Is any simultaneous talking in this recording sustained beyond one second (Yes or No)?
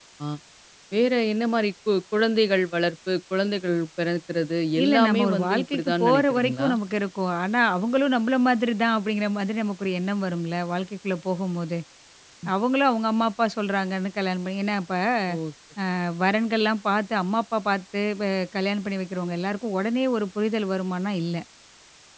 Yes